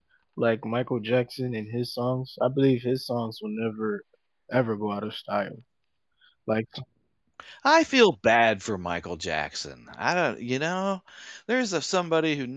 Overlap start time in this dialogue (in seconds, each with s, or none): none